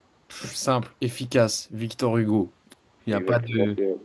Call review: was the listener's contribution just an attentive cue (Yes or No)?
No